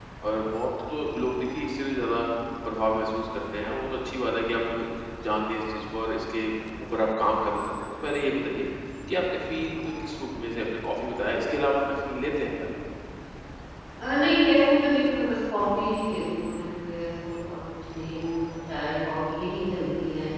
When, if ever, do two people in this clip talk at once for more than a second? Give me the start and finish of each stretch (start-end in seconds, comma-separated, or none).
none